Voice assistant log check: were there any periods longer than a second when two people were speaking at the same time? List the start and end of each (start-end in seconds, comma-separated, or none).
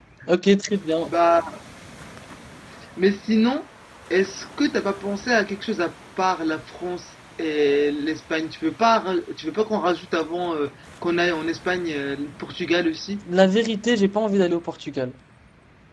none